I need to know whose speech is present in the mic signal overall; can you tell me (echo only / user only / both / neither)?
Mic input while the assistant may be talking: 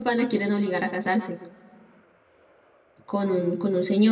user only